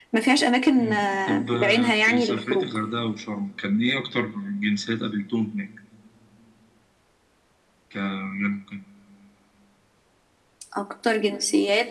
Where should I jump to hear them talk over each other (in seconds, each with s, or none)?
0.8 s